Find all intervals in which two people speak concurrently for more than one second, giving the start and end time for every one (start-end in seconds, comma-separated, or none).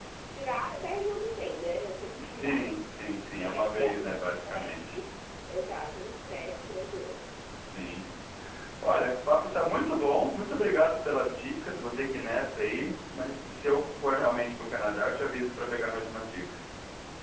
3.4-5.0